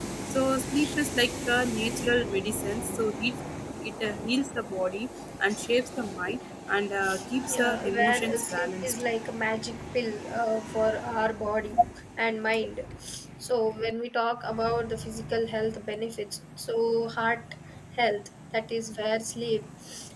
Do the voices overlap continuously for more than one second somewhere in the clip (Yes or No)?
Yes